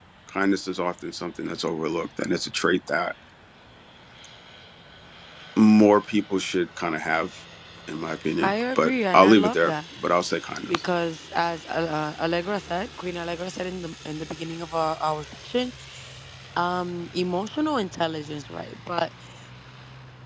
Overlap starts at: 8 s

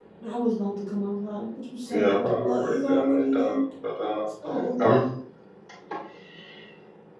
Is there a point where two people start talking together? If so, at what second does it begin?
2 s

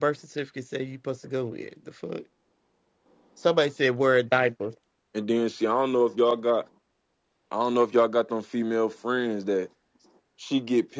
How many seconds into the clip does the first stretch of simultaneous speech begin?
none

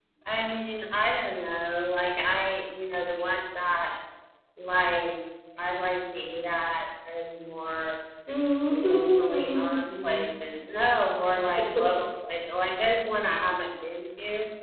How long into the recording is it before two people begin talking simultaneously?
9 s

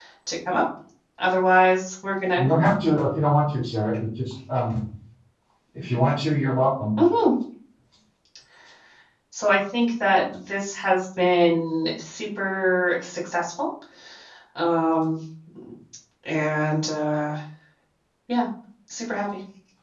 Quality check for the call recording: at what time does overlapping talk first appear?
none

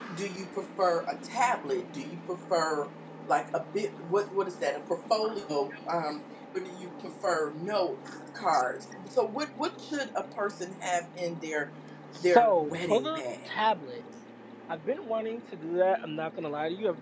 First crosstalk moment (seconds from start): 12 s

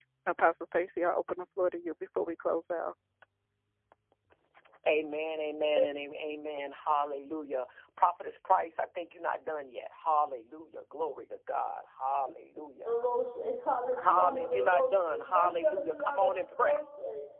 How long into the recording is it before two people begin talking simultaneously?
14 s

